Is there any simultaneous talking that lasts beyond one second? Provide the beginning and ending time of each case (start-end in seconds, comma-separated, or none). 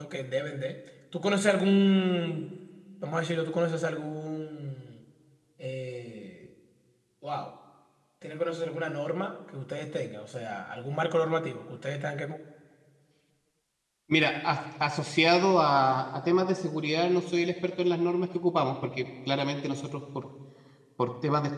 none